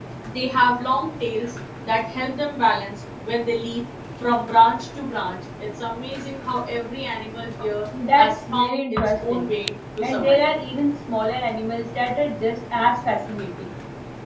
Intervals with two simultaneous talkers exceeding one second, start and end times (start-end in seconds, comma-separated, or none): 8.2-9.5